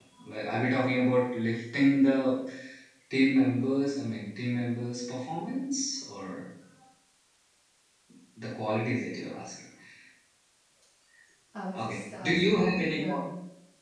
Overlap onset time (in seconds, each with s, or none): 11.7 s